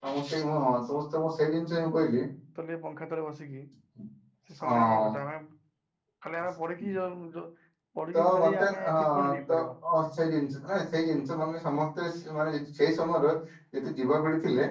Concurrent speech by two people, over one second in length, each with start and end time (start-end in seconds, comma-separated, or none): 8.1-9.5